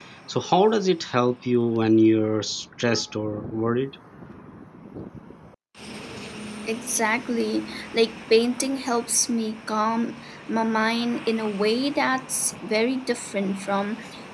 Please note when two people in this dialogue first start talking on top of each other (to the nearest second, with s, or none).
none